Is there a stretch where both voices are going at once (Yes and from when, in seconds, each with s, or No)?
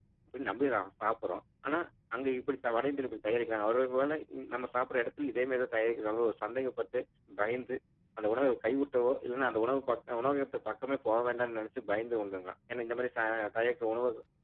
No